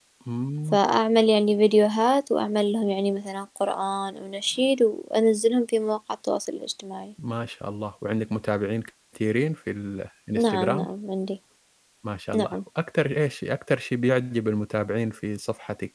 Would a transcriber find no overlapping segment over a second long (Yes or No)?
Yes